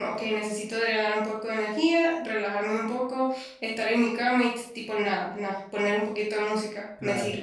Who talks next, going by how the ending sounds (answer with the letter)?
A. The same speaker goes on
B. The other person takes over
B